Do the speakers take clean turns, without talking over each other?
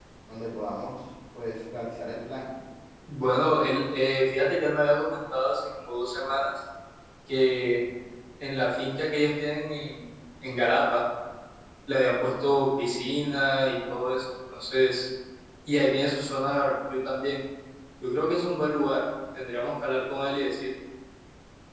Yes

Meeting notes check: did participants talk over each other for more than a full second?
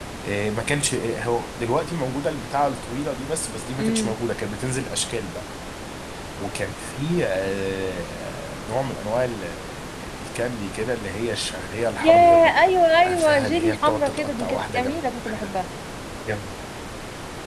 Yes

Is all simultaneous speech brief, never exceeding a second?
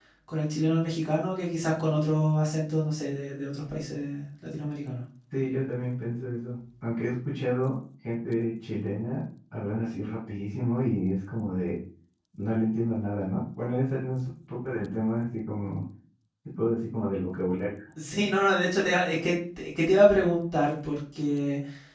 Yes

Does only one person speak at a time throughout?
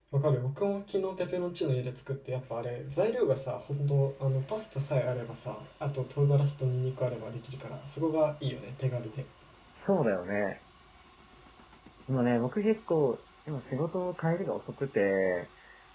Yes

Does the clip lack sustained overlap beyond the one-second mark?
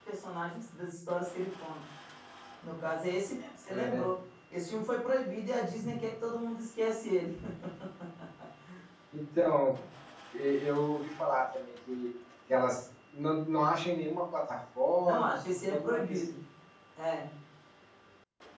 No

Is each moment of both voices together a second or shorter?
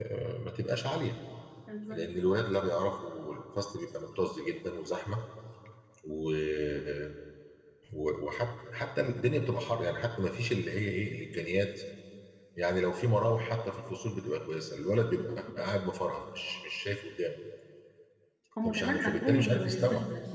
No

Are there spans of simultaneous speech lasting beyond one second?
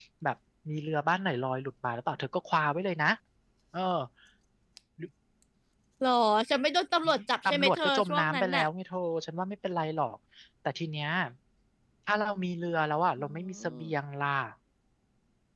Yes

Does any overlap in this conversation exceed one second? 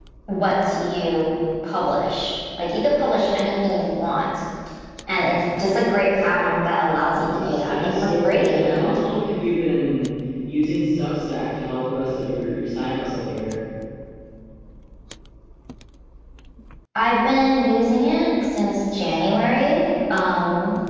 Yes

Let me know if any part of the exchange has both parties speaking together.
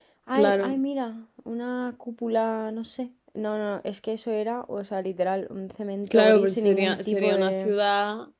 Yes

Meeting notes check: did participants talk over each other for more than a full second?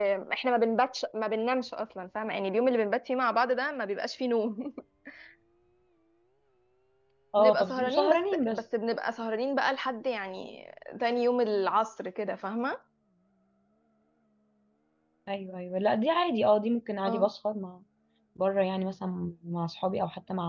Yes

